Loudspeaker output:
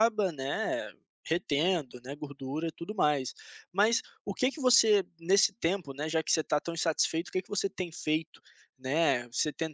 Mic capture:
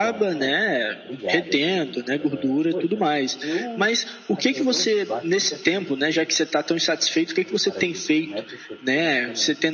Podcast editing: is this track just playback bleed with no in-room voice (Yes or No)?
No